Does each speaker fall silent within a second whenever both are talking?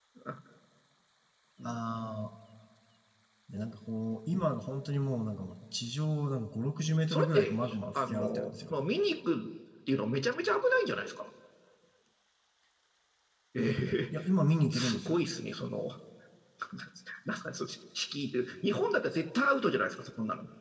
No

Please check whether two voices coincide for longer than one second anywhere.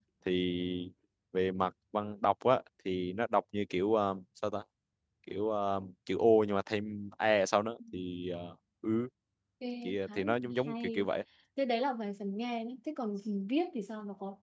Yes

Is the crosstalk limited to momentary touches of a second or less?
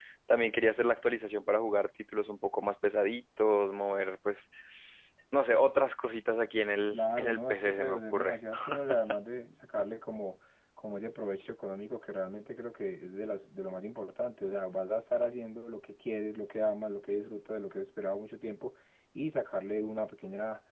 No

